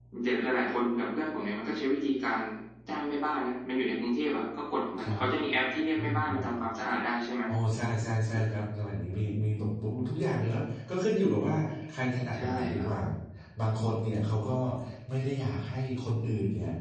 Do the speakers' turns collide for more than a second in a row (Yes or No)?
No